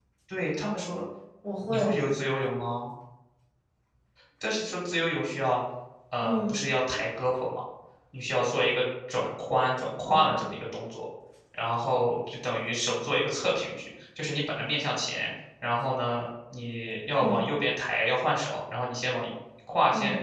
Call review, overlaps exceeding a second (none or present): none